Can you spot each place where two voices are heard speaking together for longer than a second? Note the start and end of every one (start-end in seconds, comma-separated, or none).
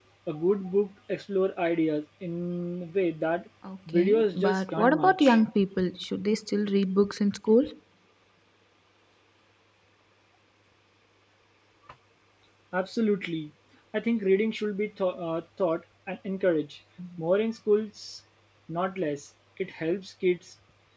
3.9-5.4